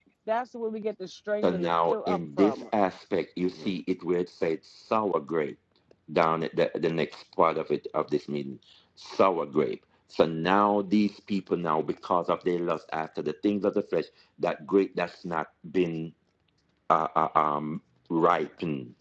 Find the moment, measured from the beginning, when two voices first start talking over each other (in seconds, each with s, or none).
1.4 s